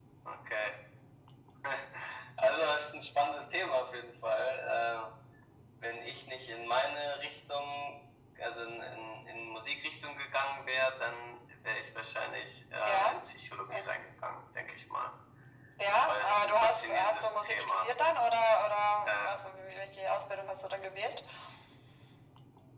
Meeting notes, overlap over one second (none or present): present